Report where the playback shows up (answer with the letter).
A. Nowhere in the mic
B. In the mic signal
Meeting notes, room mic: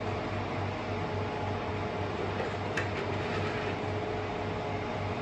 A